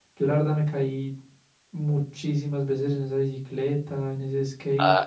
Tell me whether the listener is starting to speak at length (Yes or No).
Yes